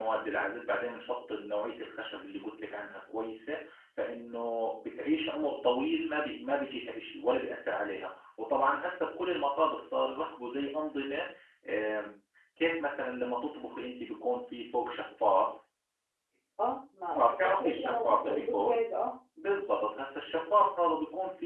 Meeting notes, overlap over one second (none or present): present